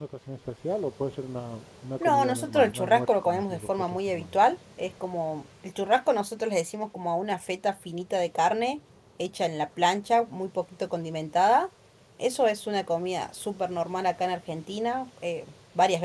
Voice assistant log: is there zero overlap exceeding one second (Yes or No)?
No